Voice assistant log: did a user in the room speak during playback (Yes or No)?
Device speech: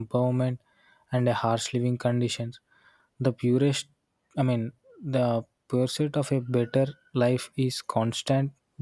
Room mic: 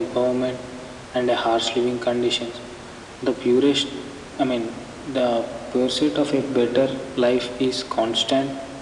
No